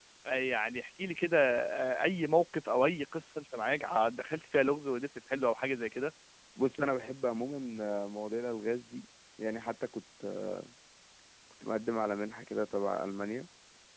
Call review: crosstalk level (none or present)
none